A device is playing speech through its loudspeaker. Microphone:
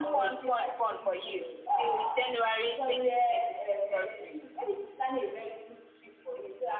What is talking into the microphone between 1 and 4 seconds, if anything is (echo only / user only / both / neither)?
both